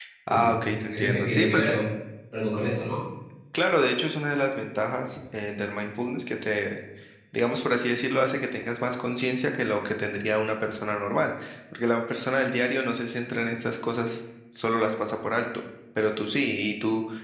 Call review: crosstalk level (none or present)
present